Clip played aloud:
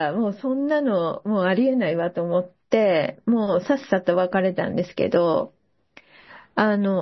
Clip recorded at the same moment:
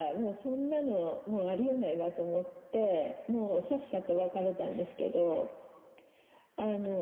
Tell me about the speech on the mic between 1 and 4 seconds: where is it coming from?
echo only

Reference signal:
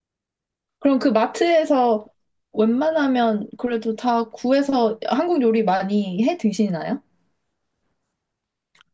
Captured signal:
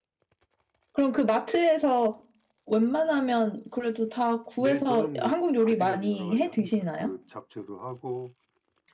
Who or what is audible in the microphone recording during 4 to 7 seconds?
both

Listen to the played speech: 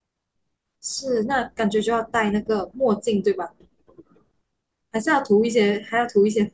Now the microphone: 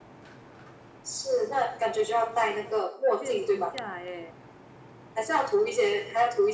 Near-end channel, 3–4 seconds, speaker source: both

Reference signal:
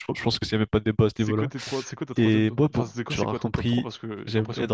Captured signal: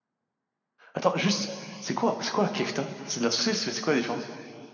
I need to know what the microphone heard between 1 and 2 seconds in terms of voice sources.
user only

